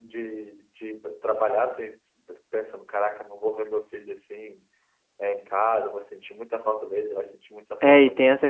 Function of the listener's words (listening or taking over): taking over